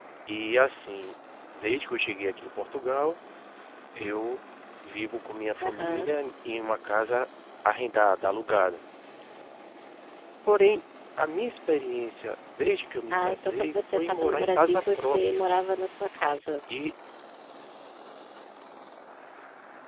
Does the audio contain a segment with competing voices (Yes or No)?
Yes